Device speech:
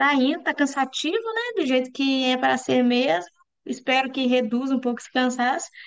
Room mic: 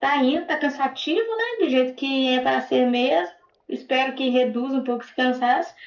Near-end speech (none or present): none